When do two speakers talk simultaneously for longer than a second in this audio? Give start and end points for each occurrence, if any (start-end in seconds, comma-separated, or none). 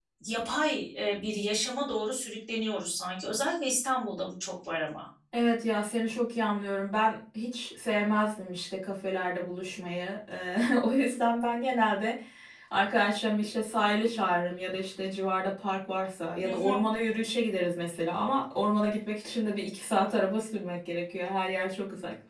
none